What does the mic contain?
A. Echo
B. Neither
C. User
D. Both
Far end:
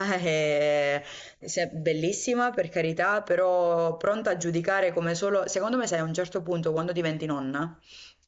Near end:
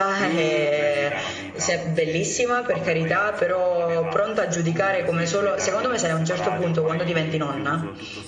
D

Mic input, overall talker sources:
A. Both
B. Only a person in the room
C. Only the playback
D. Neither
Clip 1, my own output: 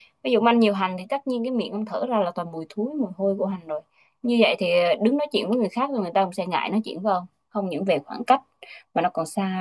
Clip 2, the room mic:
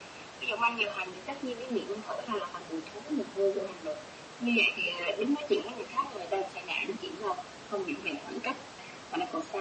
C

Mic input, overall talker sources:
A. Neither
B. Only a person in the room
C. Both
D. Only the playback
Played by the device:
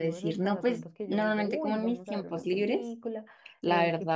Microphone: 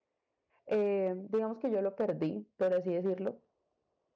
B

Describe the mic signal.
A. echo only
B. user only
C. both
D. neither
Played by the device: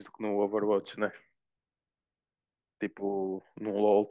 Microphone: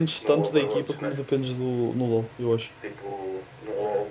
C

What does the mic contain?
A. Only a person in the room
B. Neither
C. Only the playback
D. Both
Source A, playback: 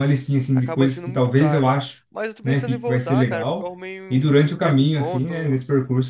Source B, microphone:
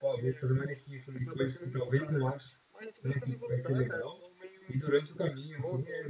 C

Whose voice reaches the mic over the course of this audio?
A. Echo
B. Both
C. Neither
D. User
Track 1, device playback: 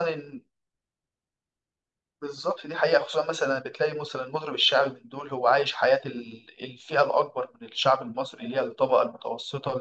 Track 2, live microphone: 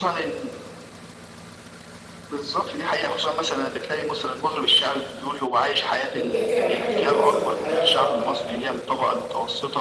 B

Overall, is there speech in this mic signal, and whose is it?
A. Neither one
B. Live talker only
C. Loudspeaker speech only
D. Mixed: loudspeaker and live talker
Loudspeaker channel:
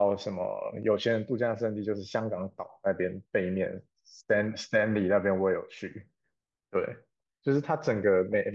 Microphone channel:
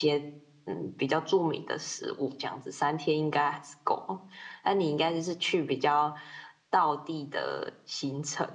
B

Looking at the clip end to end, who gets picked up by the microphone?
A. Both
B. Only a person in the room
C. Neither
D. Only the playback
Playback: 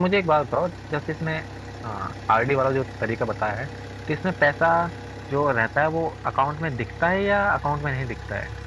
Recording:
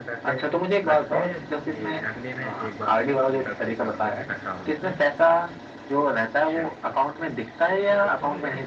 A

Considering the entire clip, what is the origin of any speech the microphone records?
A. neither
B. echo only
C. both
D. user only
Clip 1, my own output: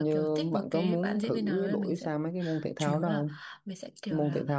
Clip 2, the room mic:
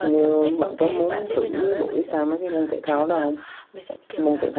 B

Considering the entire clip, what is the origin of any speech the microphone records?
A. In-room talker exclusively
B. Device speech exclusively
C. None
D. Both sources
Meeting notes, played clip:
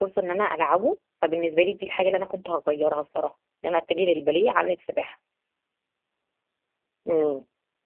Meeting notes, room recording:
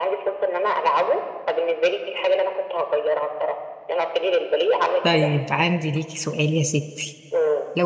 D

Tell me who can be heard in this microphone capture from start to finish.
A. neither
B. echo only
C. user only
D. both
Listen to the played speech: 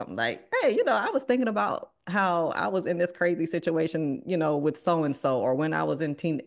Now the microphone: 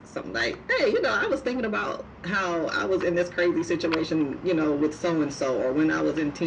B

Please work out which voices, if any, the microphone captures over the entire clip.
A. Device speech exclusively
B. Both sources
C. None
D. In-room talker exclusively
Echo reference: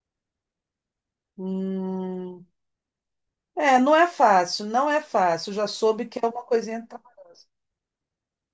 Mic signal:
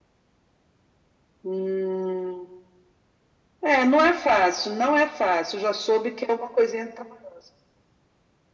A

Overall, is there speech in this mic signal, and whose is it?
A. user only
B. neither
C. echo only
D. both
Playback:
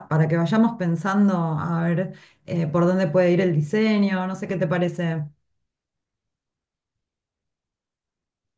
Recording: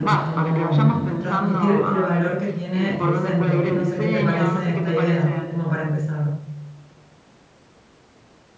D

